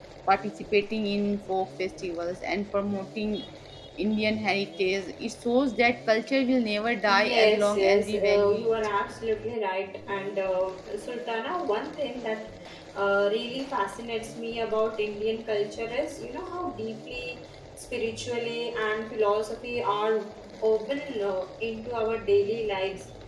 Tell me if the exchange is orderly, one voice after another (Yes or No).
No